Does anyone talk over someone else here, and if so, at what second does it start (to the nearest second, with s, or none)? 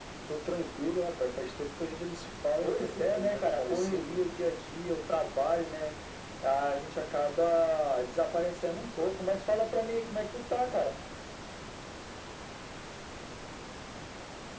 3 s